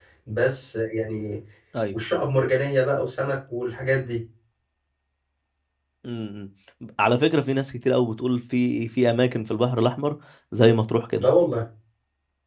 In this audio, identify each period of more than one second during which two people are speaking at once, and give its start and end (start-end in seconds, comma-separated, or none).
none